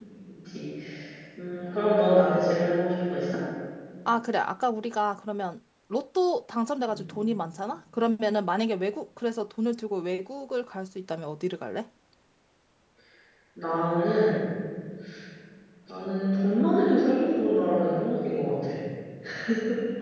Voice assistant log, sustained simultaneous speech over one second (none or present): none